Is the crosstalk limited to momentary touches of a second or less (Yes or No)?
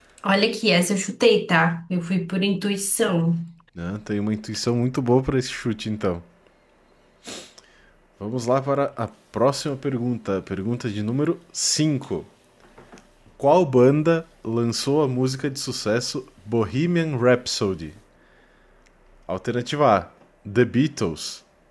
Yes